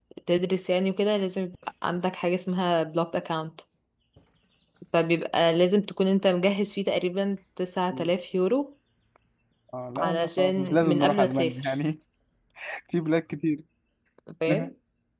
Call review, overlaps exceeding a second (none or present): present